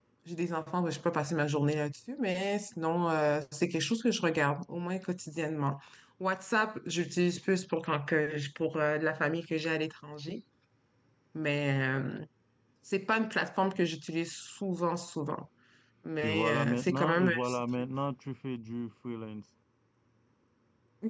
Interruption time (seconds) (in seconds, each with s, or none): 16.2 s